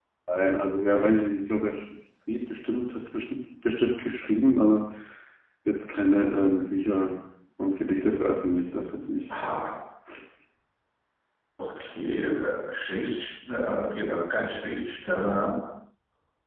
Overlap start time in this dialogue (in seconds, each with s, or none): none